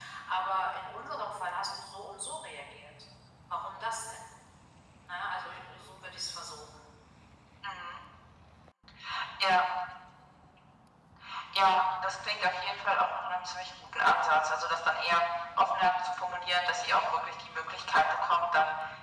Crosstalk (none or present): none